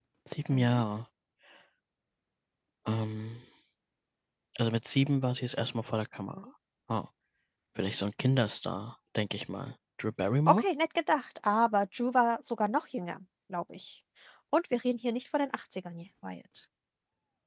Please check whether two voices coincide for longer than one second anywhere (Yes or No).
No